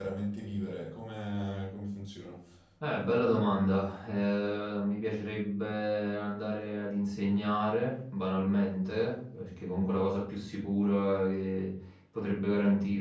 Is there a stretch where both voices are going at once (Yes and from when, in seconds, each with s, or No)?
No